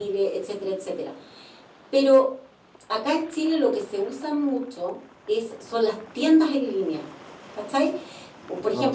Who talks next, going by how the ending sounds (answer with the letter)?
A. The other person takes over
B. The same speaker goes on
B